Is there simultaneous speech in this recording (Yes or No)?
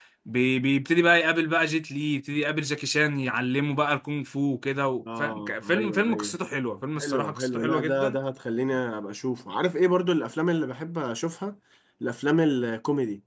Yes